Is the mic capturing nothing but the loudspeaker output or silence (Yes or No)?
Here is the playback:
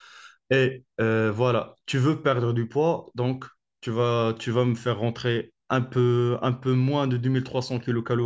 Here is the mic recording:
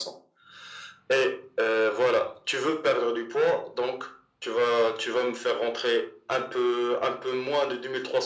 Yes